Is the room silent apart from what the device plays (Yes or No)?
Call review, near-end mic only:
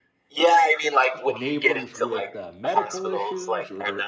No